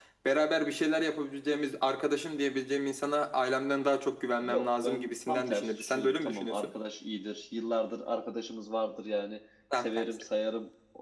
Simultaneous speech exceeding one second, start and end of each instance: 4.4-6.7

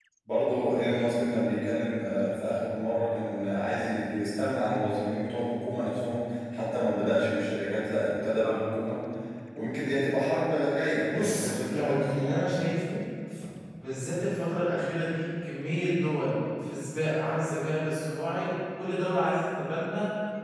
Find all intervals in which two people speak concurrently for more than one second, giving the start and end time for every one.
11.1-12.4

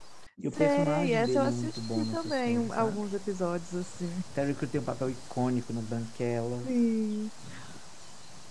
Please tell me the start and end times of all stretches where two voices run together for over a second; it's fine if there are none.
0.5-3.0

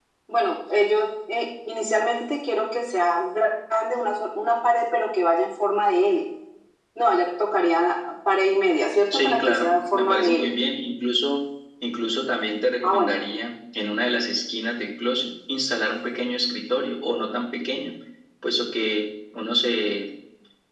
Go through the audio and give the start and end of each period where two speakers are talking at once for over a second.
9.1-10.5

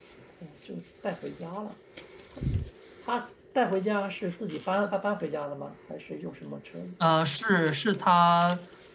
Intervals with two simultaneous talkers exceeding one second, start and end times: none

